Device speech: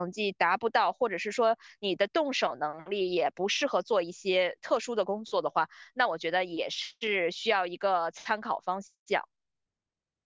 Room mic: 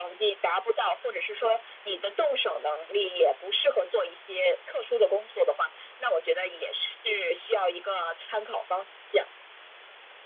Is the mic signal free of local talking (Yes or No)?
Yes